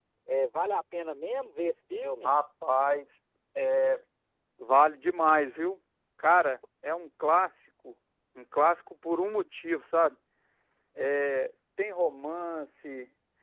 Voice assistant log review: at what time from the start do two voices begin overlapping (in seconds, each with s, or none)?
none